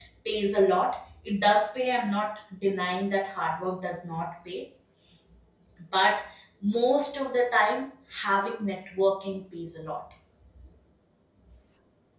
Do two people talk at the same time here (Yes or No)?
No